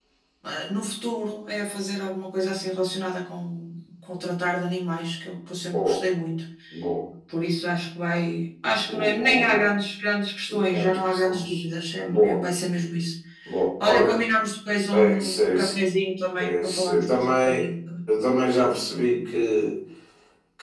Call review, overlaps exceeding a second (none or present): present